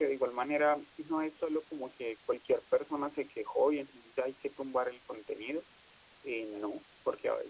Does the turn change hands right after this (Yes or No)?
No